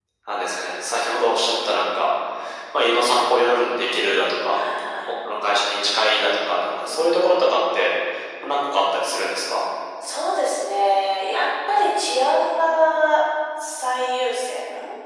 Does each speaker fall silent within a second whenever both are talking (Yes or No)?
Yes